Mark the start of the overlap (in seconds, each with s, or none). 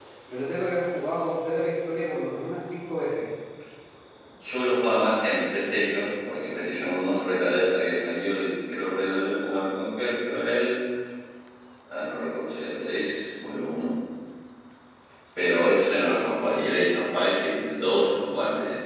none